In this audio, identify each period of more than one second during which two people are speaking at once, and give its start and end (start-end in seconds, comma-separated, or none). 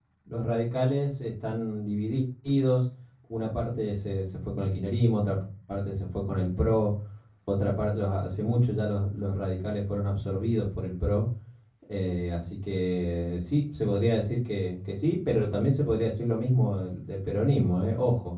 none